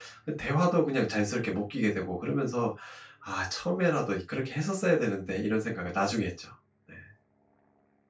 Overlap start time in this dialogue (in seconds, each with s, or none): none